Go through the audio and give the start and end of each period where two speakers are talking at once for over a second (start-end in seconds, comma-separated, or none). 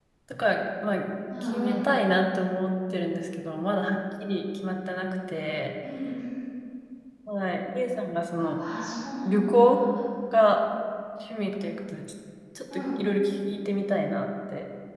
none